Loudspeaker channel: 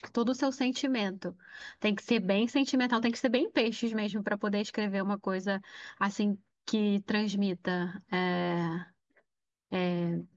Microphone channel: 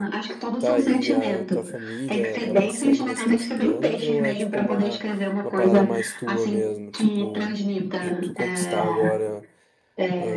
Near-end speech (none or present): present